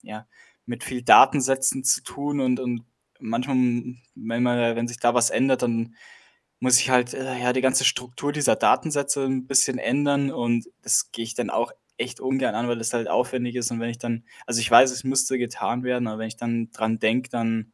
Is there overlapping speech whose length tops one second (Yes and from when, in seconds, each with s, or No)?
No